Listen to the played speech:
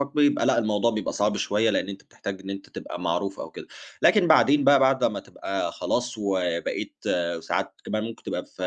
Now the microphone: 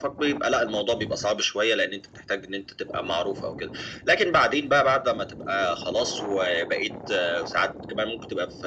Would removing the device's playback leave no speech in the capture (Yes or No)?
Yes